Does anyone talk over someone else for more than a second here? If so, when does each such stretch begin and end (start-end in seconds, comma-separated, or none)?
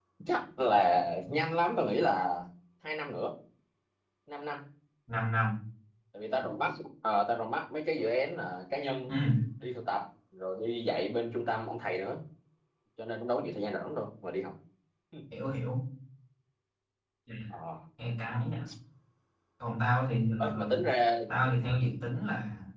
none